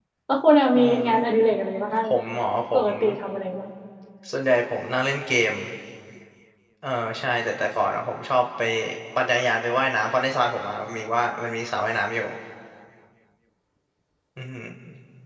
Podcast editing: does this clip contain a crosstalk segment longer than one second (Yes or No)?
No